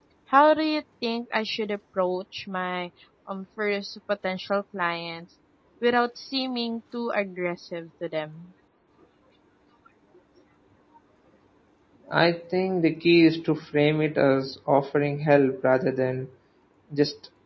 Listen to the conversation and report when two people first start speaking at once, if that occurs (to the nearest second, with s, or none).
none